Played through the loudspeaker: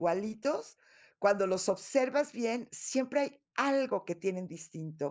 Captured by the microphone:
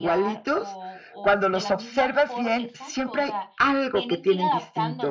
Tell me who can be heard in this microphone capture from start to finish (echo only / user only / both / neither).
both